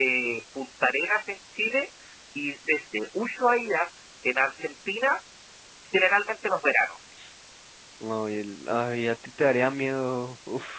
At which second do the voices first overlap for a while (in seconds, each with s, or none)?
none